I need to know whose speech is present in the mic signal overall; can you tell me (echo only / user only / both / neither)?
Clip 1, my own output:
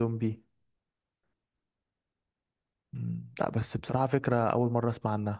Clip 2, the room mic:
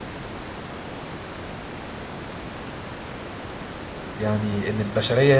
user only